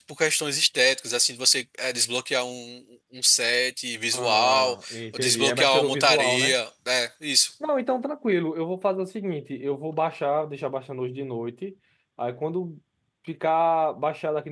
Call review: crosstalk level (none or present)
present